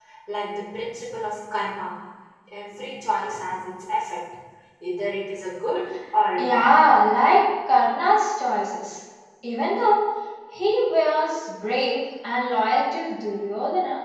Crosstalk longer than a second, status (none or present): none